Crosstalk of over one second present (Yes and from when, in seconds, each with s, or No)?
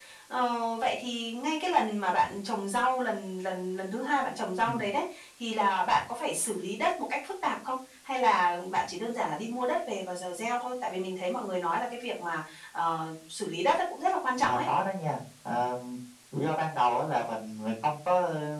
No